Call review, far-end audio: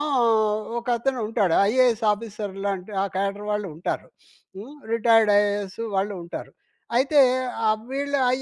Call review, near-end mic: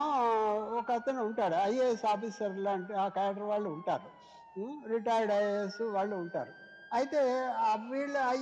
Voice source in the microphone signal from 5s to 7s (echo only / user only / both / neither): echo only